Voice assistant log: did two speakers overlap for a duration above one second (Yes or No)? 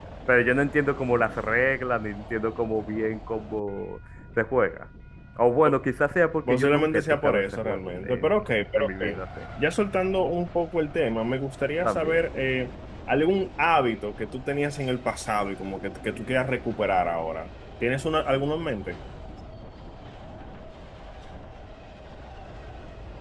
Yes